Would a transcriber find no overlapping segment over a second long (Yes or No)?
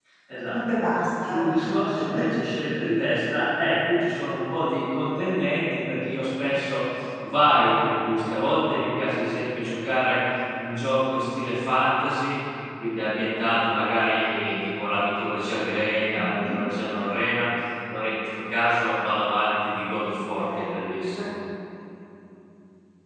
Yes